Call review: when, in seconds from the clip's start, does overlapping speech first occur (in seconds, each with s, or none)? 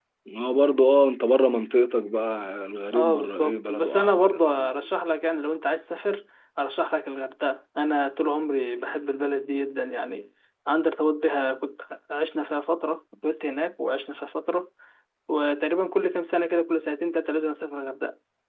2.9 s